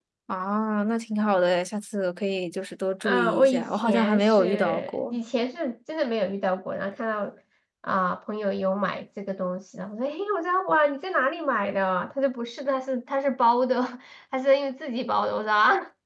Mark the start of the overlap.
3.0 s

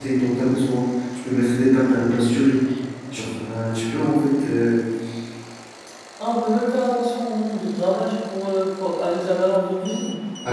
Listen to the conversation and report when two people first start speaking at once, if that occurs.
none

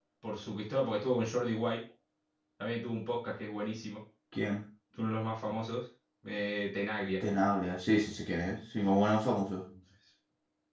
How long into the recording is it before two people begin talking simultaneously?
none

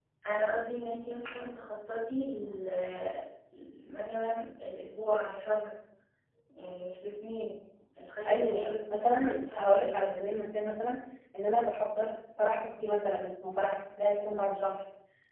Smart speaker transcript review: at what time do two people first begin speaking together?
8.2 s

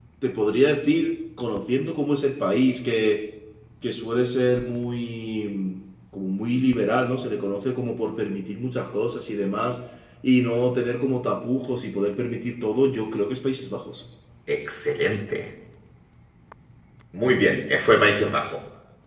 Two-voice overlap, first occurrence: none

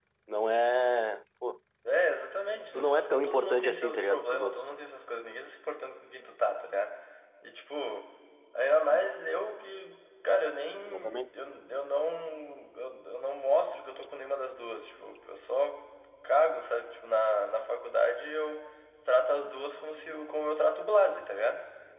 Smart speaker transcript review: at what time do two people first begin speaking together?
2.7 s

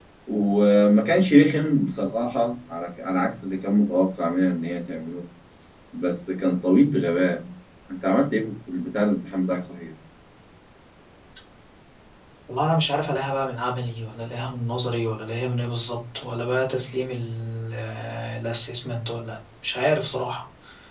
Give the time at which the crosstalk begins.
none

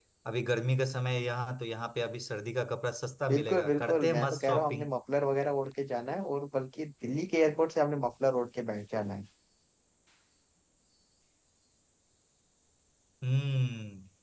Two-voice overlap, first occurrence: 3.3 s

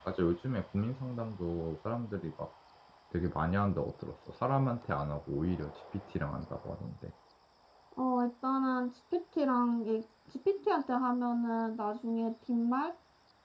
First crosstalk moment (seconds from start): none

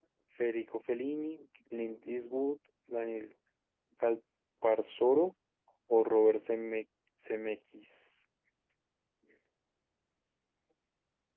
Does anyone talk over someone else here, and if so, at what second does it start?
none

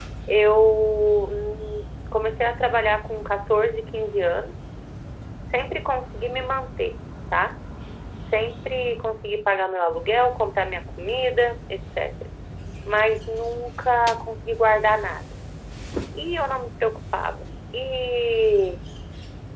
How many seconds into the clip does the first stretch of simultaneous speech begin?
none

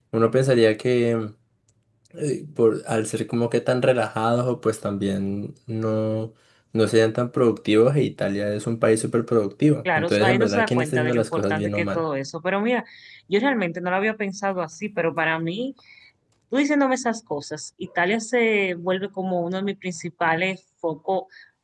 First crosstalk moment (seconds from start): 9.8 s

